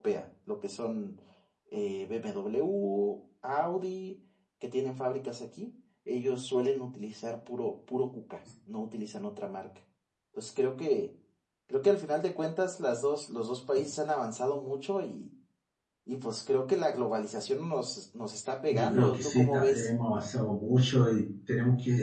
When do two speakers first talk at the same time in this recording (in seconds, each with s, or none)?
18.7 s